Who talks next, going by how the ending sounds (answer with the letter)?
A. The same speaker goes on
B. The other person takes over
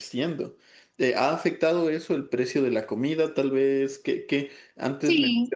A